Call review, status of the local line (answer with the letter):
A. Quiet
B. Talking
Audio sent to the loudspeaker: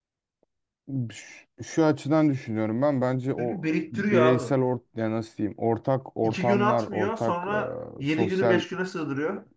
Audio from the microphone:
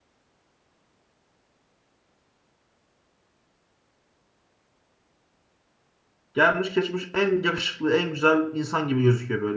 B